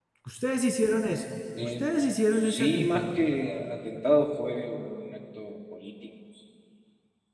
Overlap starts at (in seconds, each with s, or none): 1.6 s